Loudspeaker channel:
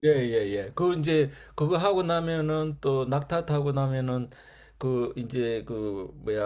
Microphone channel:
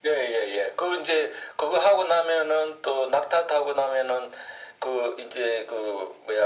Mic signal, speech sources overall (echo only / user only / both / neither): echo only